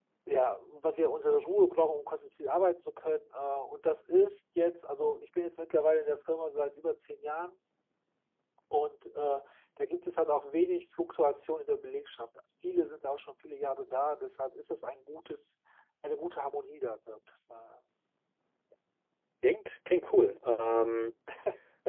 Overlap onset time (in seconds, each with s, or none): none